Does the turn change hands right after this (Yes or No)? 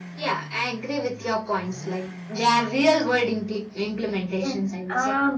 Yes